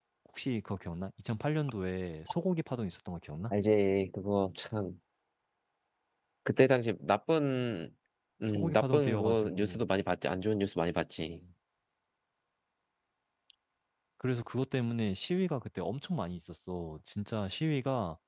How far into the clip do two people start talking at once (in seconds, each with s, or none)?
8.5 s